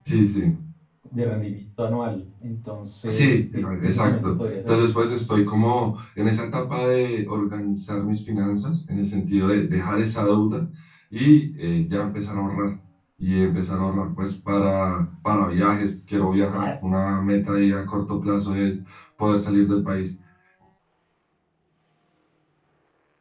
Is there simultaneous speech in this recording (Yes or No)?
Yes